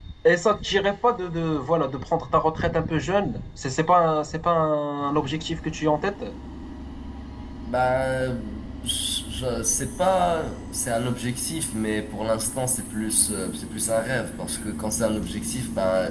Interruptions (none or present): none